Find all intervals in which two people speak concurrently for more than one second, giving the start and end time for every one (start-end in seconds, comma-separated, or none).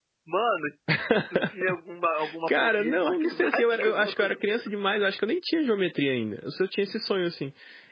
2.5-4.3